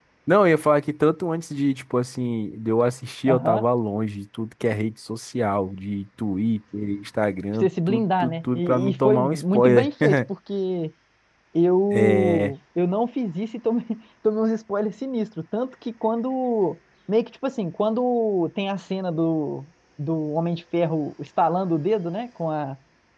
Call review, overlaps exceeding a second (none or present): present